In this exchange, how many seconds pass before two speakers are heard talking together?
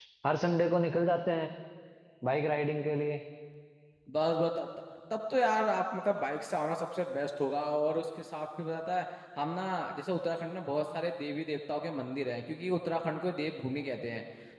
none

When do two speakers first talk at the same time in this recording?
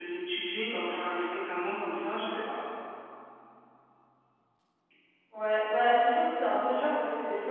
none

